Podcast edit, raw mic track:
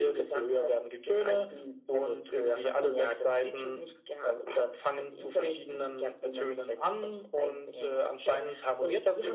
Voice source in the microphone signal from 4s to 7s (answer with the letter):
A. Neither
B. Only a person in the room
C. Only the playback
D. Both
C